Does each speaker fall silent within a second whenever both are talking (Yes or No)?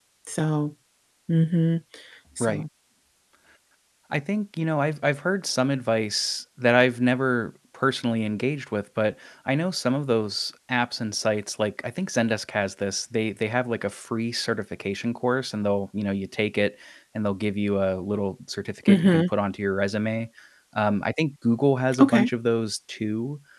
Yes